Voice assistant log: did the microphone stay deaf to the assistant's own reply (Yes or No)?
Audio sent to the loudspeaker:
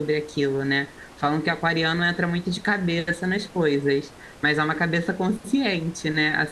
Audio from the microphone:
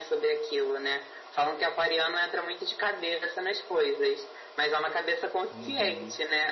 No